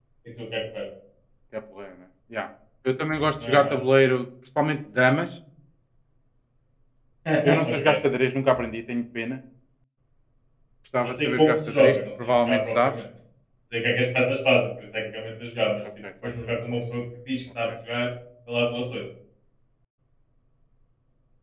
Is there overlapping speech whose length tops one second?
Yes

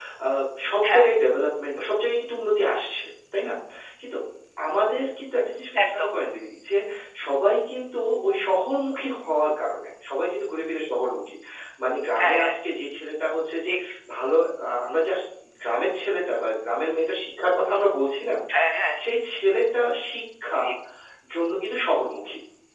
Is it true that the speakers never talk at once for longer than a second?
Yes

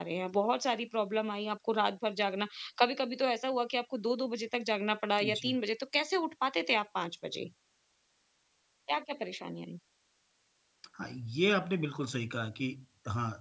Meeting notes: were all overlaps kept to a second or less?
Yes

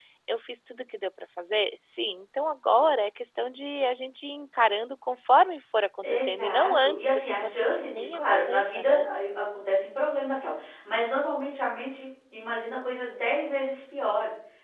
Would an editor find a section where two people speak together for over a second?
Yes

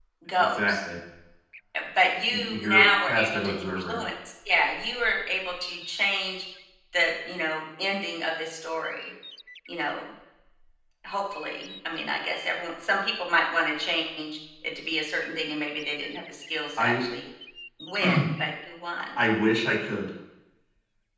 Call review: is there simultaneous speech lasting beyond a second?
Yes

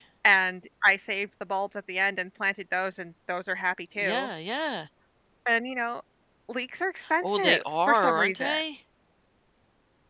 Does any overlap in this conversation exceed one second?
Yes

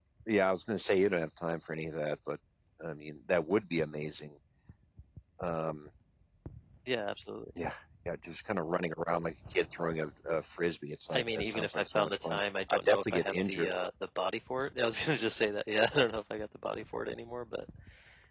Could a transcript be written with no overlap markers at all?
No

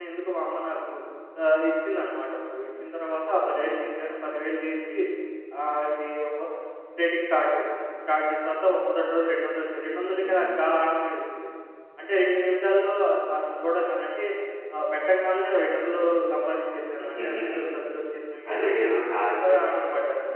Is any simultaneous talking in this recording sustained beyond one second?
Yes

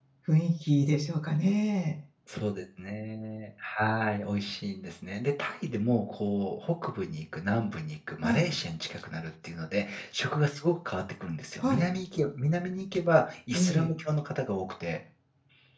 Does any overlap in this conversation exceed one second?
No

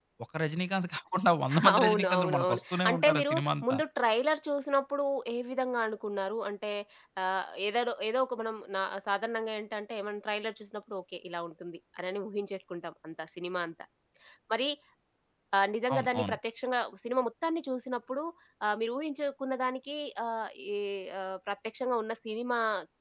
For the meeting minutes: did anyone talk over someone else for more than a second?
Yes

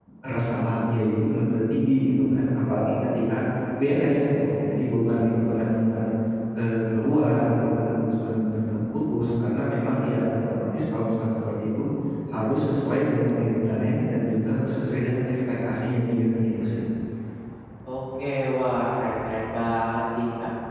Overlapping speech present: No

